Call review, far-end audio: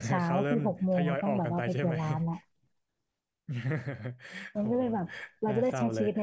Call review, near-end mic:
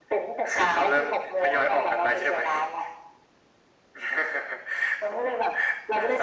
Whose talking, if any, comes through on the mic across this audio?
echo only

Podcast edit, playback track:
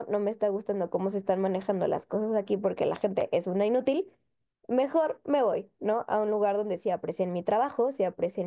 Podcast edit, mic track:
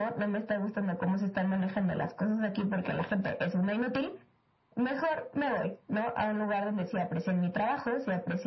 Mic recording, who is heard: echo only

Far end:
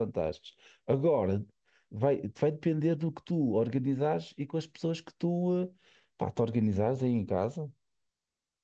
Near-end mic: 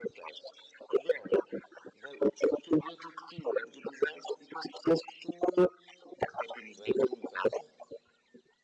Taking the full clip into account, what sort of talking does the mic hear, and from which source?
echo only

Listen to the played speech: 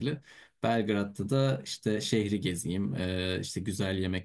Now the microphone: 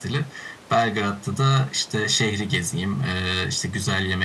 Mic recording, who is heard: echo only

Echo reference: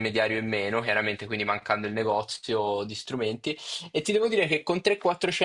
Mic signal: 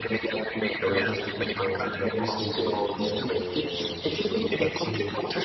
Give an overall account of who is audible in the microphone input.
both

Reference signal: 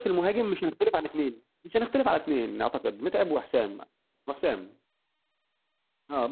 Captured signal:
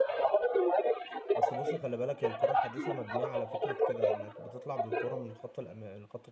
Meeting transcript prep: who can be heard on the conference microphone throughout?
both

